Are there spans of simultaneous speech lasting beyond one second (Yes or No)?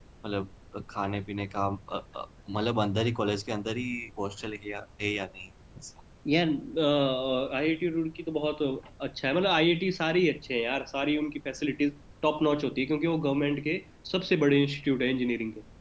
No